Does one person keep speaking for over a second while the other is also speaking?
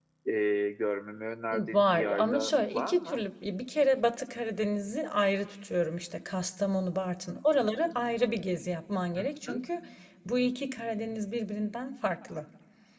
Yes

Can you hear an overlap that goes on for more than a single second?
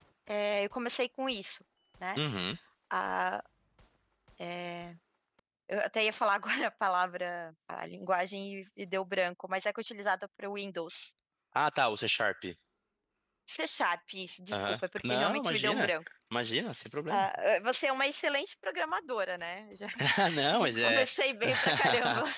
Yes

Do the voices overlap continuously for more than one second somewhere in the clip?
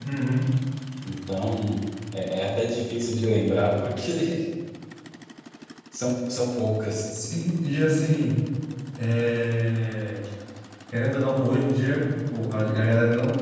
No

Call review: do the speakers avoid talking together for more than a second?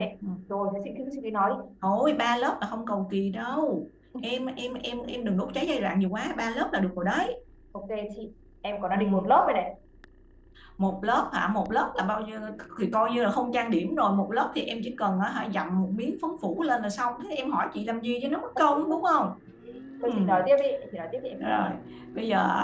Yes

